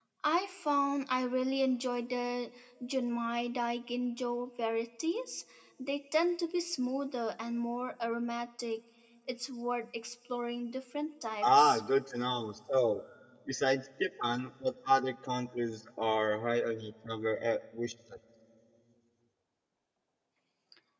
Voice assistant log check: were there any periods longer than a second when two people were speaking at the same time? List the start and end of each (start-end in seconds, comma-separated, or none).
none